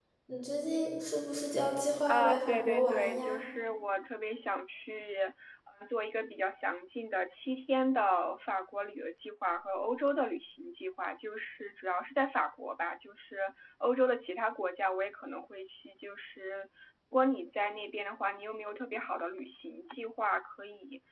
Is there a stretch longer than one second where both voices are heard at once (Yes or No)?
Yes